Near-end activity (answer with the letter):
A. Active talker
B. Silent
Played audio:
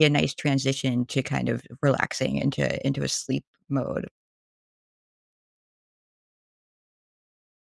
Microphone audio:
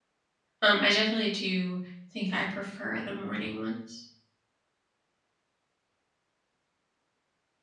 A